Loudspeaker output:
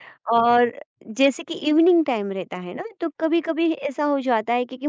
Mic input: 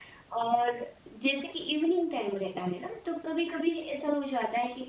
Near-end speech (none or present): none